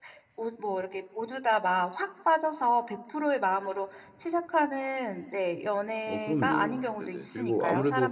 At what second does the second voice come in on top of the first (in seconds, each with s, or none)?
6.1 s